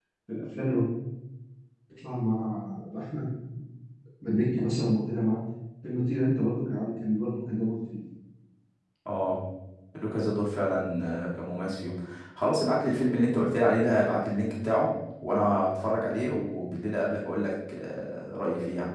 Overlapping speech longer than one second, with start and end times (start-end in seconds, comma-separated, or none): none